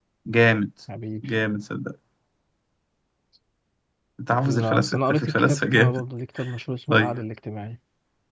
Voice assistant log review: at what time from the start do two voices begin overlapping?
4.5 s

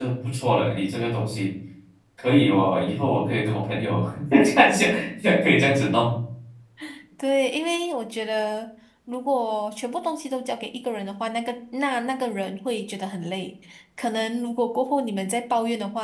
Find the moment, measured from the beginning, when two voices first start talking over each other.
none

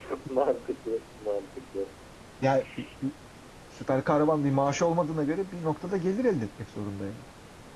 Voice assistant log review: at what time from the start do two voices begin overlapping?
none

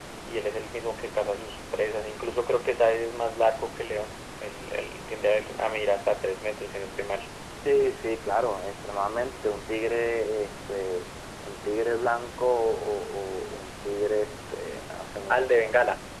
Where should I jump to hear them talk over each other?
none

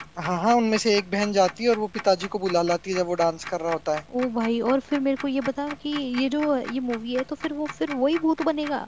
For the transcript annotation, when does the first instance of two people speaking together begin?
none

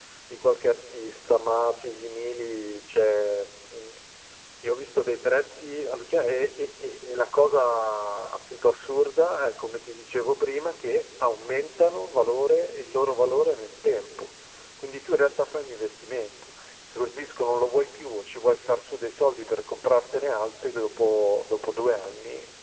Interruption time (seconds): none

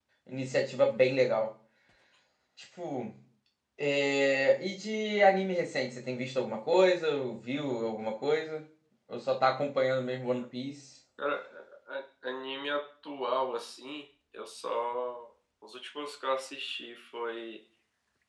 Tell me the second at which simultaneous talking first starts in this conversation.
none

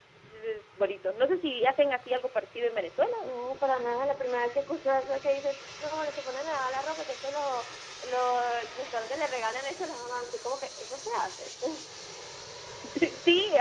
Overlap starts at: none

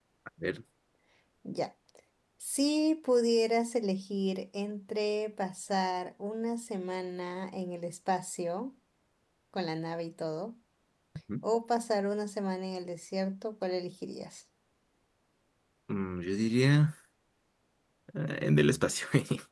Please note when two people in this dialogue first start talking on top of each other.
none

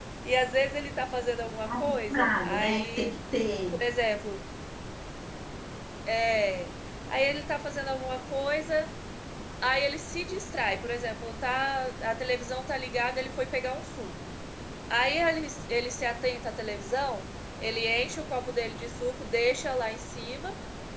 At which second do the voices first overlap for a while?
1.6 s

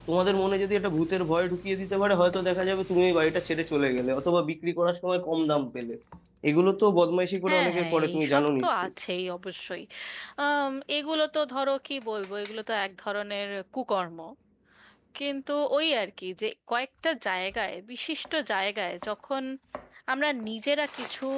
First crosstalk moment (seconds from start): 7.5 s

